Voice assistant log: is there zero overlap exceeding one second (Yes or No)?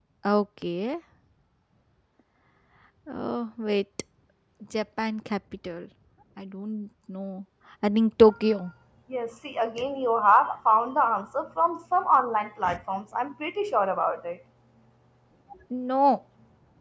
Yes